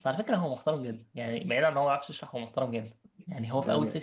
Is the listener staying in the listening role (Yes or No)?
Yes